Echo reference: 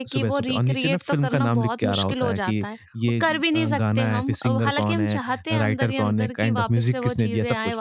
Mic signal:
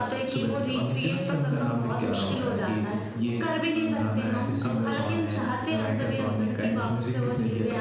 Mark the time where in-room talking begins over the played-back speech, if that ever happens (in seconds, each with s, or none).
none